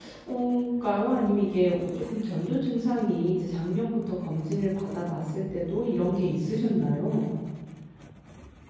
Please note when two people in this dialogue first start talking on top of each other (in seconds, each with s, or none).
none